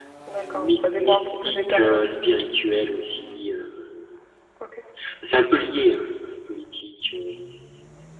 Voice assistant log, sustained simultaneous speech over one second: present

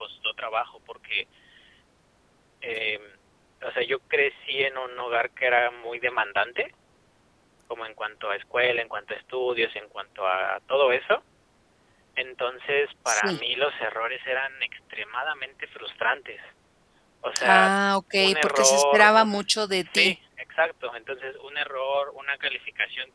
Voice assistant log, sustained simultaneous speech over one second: present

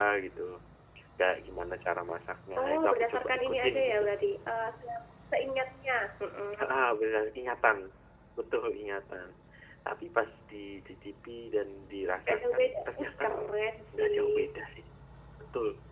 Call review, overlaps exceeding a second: present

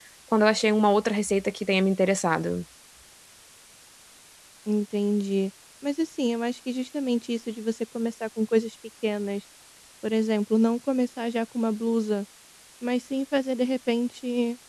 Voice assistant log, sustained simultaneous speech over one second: none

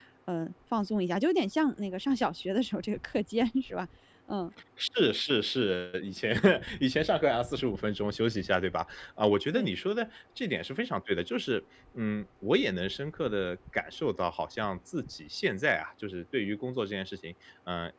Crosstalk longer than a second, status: none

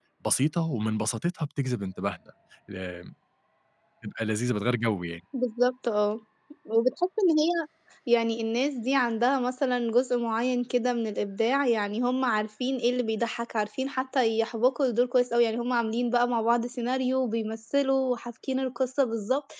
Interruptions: none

